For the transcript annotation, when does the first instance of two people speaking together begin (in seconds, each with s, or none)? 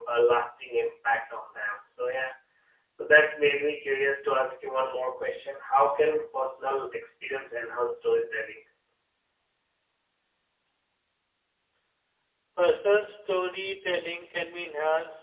none